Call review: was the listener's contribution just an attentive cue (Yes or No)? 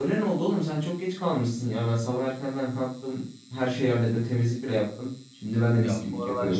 No